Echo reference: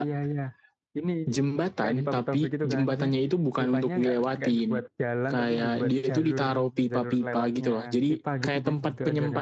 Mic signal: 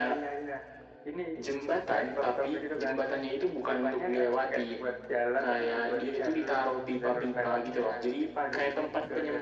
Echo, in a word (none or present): present